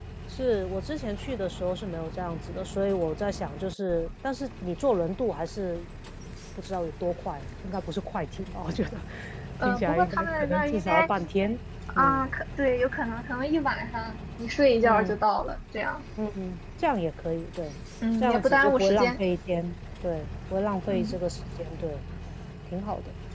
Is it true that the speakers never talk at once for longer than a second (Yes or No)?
No